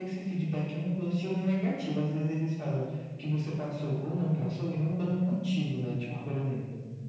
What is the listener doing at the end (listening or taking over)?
listening